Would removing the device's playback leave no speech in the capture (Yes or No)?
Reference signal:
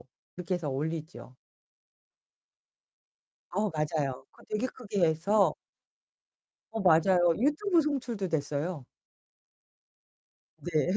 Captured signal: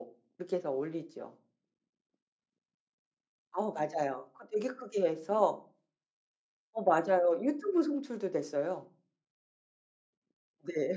Yes